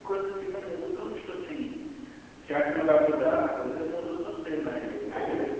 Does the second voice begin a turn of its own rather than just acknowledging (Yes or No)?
No